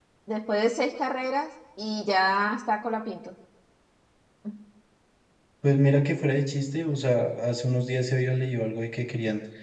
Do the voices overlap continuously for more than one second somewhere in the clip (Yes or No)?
No